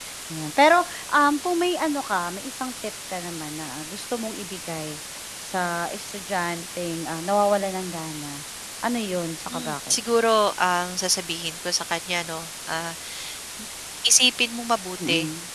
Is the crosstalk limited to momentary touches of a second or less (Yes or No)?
Yes